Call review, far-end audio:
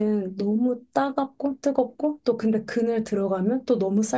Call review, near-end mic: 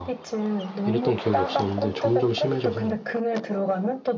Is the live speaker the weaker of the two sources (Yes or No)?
No